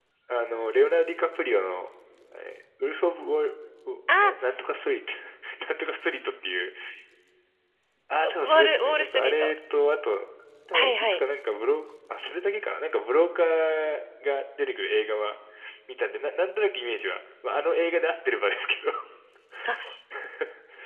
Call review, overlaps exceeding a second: present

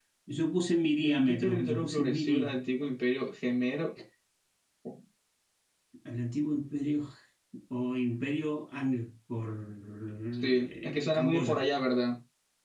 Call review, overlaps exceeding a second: present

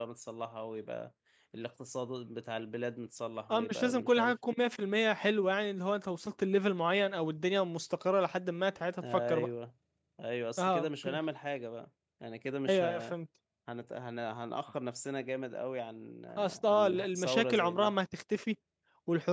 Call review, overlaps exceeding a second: present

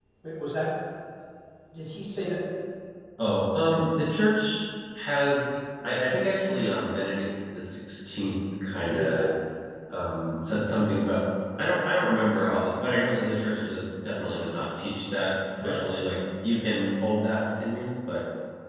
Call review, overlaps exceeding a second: none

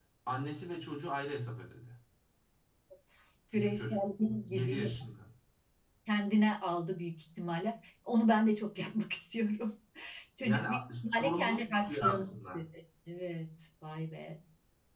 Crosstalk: present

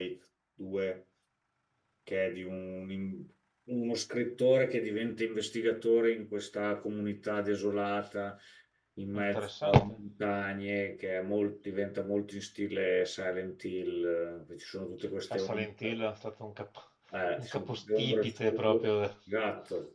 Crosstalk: present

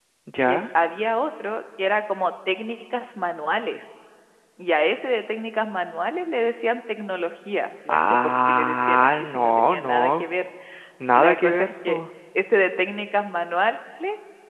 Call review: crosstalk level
present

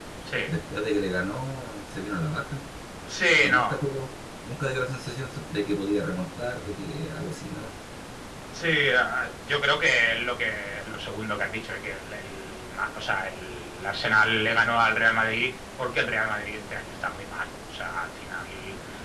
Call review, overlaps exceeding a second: none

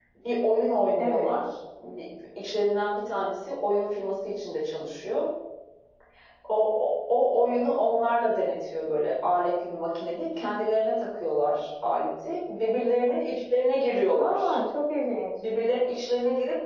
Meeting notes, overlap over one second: none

